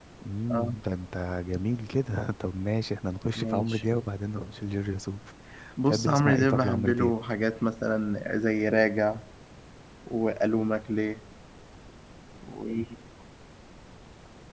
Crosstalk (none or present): present